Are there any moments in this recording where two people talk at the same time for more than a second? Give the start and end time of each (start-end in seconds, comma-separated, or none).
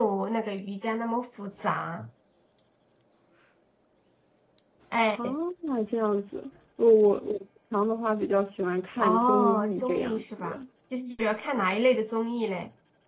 9.0-10.6